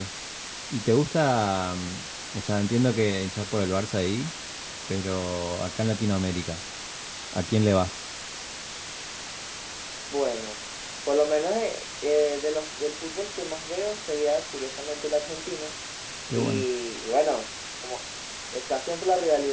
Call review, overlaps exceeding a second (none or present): none